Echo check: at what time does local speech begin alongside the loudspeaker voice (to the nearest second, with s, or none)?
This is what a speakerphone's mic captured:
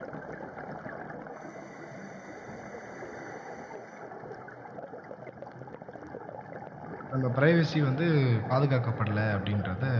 7 s